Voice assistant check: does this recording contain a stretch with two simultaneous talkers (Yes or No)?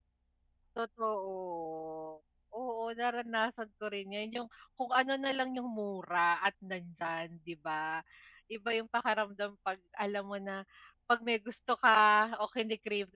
No